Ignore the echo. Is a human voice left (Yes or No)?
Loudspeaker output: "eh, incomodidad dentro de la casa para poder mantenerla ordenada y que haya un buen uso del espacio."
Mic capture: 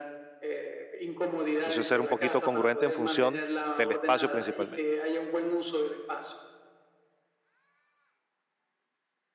Yes